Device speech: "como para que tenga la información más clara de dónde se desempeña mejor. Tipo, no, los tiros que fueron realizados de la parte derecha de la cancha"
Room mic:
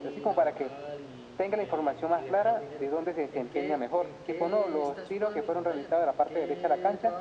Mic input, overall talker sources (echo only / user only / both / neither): both